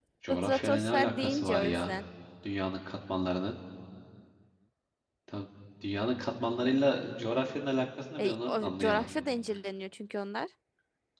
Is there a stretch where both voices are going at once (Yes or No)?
Yes